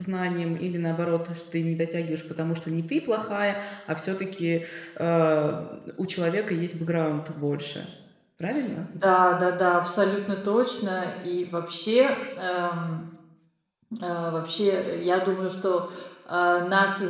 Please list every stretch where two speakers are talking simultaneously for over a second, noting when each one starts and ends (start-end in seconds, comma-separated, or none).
none